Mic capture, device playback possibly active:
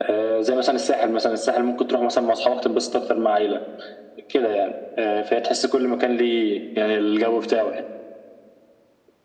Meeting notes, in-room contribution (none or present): none